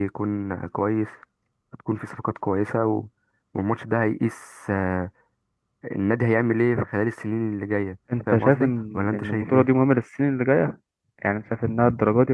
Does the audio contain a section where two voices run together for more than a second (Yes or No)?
Yes